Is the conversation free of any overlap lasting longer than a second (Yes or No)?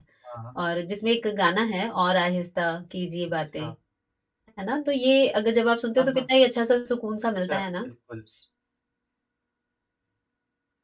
Yes